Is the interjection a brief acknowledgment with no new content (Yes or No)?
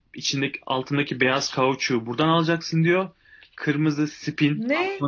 Yes